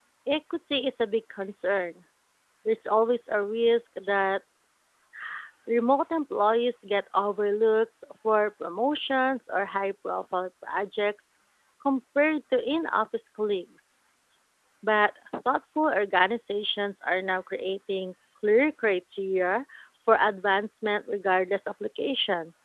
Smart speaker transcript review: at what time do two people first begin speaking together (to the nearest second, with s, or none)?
none